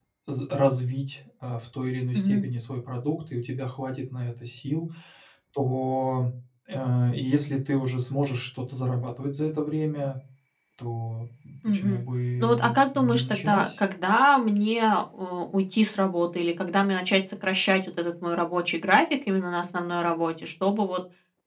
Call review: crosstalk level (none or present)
present